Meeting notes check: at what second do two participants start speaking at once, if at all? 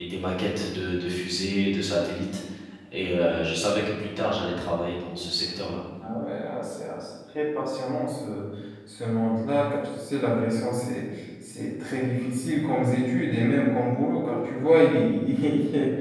none

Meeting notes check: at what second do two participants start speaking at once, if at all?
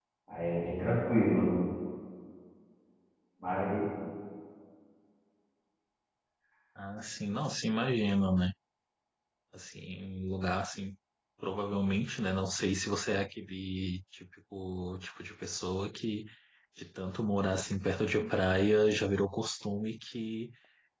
none

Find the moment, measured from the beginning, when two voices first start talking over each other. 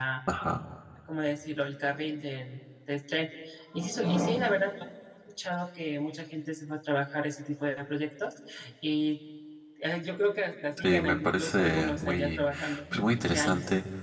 10.8 s

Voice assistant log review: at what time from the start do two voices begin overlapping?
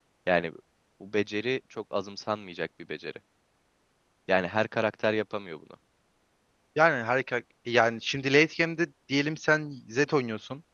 none

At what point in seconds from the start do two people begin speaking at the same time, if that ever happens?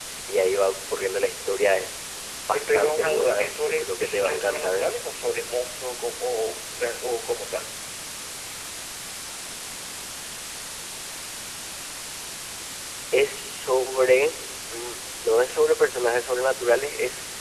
2.5 s

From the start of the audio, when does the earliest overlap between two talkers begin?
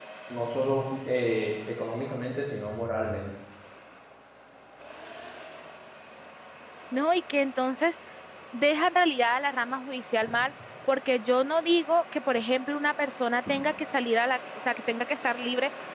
none

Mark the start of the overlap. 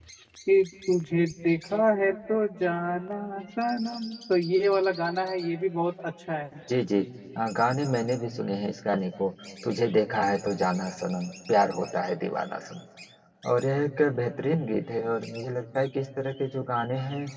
none

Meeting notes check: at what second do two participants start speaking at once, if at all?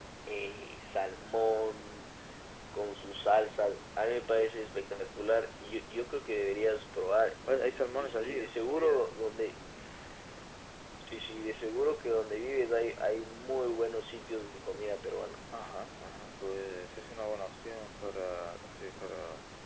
7.5 s

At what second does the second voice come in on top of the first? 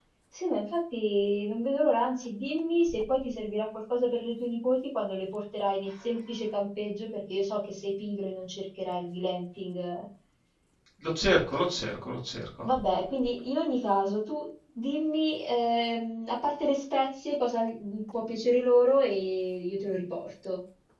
none

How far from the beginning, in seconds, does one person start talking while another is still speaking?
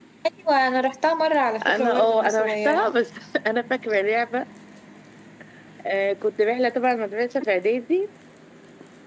1.6 s

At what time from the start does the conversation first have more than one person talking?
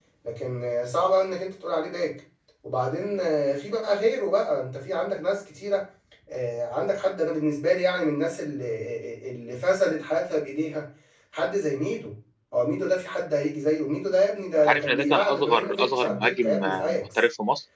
14.7 s

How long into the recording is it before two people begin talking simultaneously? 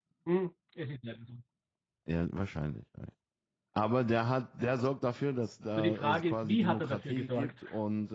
5.8 s

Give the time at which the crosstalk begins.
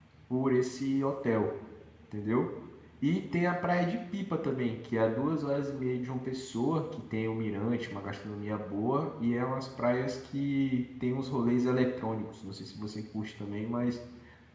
none

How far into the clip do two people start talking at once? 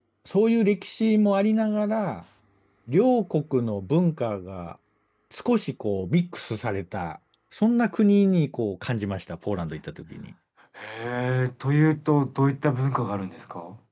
none

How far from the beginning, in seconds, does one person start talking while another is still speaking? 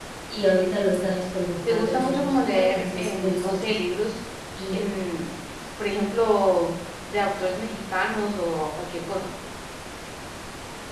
1.7 s

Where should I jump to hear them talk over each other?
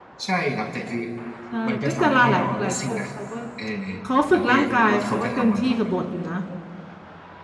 1.7 s

